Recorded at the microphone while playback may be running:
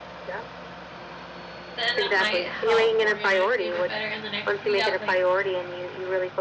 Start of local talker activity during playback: 2 s

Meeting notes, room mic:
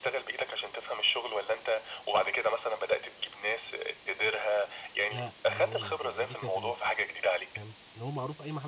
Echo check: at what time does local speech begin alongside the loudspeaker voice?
5 s

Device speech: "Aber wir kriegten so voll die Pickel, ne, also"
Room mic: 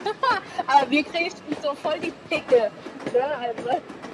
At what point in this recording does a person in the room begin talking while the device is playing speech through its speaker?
none

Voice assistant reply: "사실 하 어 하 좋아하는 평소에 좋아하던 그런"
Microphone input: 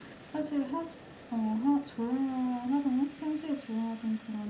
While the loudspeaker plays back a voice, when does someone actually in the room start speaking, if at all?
none

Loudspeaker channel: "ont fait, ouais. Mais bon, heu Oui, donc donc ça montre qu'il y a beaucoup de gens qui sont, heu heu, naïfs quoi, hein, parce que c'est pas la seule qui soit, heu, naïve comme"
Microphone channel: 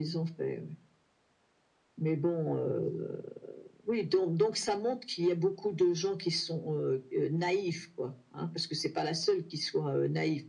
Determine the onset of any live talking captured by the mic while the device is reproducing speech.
none

